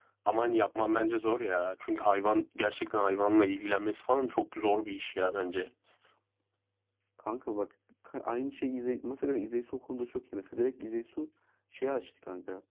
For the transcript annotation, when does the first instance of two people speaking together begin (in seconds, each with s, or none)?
none